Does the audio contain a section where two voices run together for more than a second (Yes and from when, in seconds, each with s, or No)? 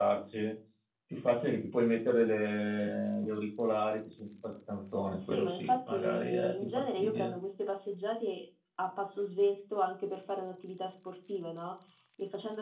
Yes, from 5.2 s